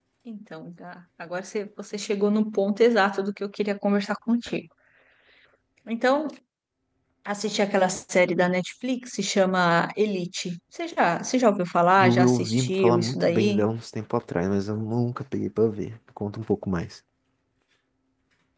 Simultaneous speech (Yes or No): Yes